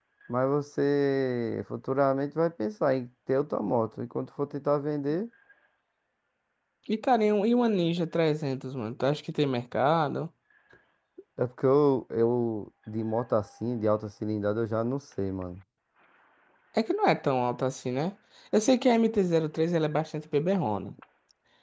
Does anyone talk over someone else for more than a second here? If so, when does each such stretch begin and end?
none

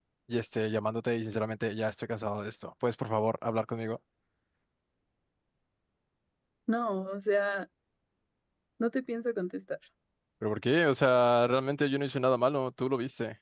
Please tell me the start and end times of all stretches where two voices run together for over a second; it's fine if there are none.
none

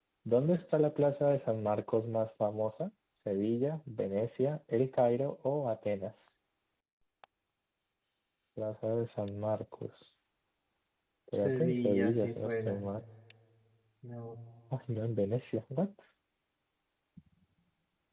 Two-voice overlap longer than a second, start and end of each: 11.3-12.8

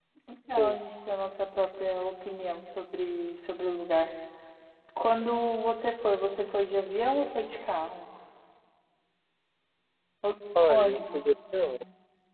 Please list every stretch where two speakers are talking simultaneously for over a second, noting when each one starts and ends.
10.6-11.8

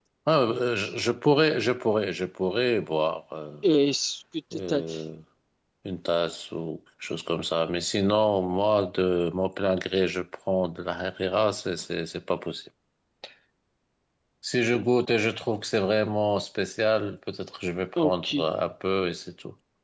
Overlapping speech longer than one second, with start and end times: none

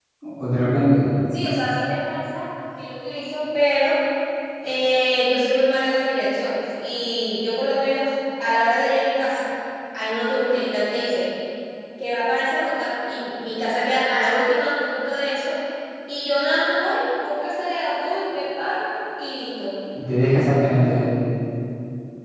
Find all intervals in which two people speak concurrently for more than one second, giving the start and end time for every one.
none

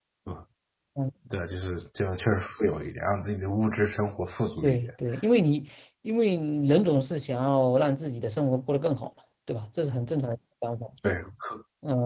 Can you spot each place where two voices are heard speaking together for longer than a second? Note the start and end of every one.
none

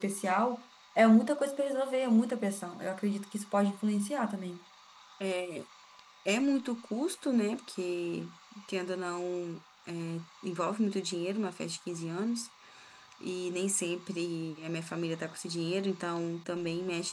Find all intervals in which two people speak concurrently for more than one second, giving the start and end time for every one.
none

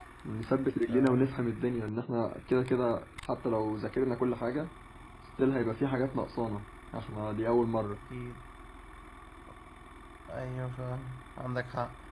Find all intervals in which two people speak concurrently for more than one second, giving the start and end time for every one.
none

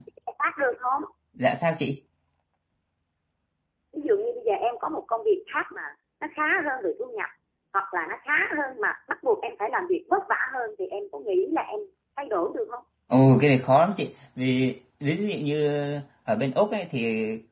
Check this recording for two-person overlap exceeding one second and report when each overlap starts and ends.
none

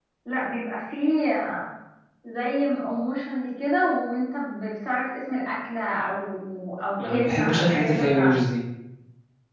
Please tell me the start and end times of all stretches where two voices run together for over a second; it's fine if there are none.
7.1-8.4

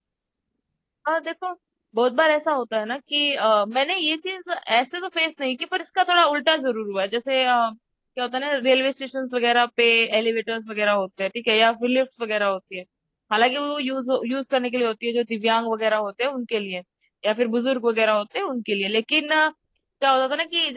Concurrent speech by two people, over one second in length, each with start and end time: none

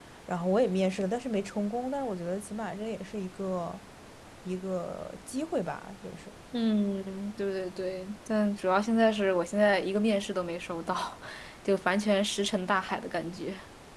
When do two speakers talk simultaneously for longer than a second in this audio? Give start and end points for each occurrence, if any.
none

